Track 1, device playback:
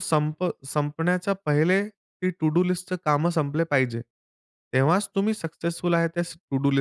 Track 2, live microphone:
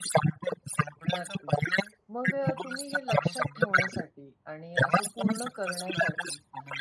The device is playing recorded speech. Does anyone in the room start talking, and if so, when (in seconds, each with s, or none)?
1.1 s